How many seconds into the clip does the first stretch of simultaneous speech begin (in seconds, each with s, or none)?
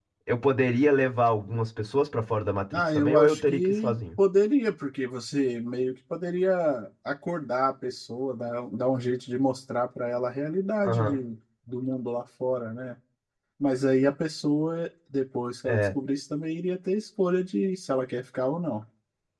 2.7 s